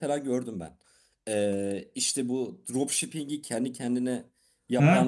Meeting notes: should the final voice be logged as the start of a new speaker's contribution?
Yes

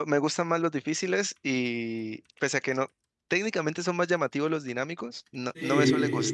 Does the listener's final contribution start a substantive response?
Yes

